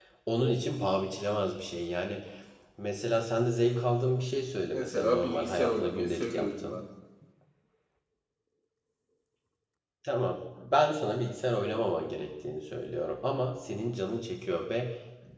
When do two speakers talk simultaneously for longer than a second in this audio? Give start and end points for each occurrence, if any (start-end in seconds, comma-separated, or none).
4.7-6.8